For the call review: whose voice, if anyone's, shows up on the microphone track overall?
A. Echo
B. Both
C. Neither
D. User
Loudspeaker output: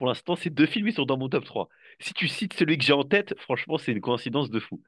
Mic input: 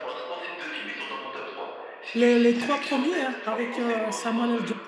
B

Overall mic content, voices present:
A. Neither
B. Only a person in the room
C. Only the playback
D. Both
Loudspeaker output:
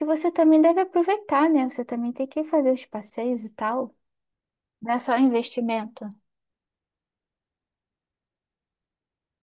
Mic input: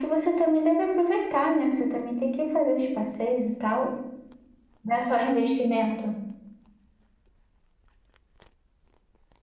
C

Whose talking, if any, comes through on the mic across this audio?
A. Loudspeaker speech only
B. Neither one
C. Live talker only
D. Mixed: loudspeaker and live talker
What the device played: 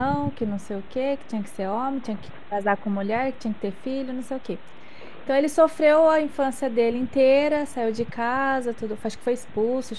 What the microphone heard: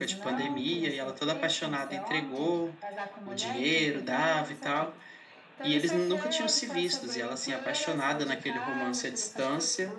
D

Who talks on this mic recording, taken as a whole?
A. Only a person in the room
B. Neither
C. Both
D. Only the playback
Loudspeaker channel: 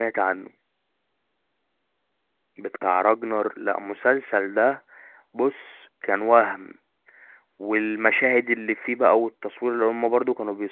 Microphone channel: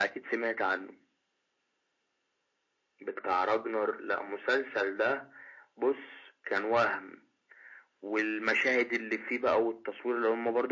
D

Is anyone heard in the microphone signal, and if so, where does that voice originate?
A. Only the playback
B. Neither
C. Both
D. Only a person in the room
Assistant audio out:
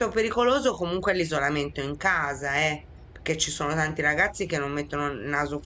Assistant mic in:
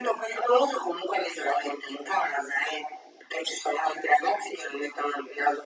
A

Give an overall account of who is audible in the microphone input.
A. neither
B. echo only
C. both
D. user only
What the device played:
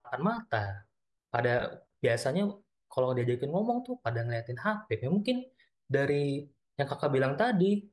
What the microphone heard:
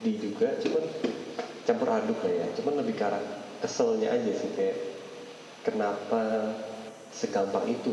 D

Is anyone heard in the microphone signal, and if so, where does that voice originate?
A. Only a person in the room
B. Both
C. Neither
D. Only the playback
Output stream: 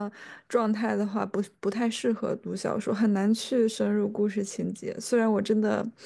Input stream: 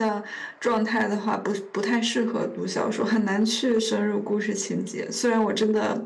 D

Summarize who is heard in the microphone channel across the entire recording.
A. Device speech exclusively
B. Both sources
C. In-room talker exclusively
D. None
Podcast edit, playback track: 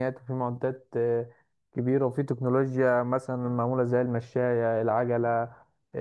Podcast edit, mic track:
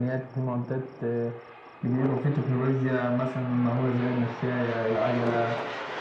A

